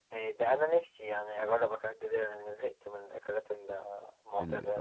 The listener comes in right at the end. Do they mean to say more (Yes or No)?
Yes